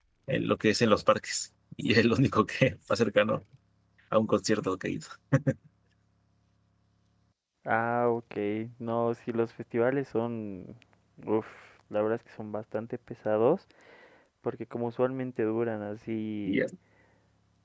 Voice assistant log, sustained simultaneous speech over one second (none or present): none